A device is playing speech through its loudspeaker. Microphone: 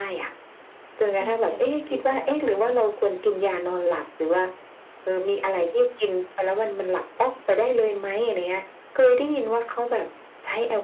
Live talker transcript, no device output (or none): ตีหนึ่งตีสองอะไรเงี้ย